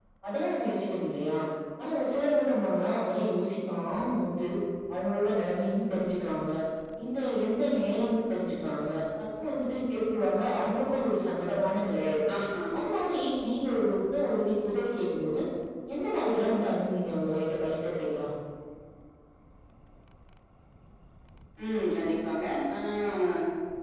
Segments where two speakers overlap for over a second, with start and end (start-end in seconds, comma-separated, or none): none